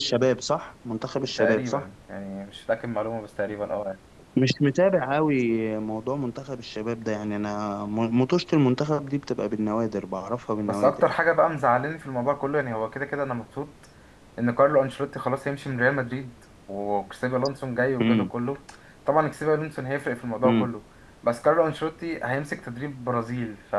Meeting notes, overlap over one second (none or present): none